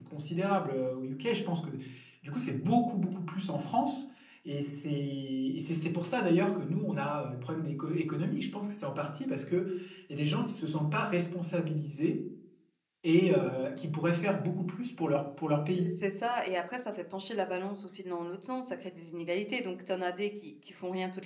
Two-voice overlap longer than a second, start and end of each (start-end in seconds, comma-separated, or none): none